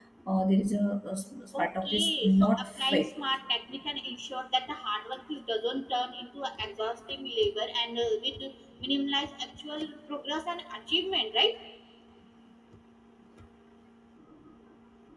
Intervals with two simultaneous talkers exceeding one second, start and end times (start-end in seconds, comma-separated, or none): 1.6-3.1